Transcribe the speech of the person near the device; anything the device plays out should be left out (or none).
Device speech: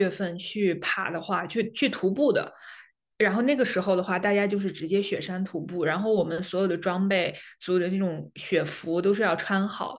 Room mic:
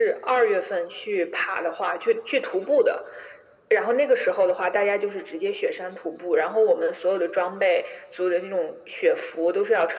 none